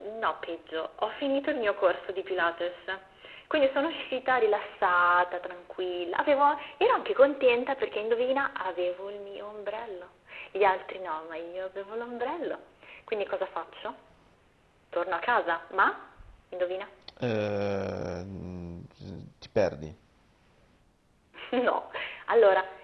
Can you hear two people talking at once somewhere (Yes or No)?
No